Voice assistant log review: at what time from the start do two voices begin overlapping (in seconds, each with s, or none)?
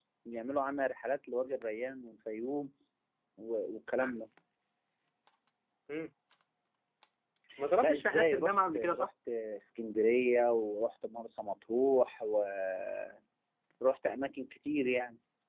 7.8 s